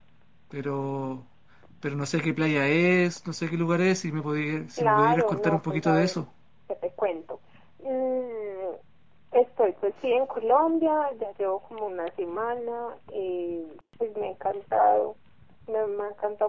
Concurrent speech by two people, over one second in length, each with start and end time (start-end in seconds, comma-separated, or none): 4.8-6.2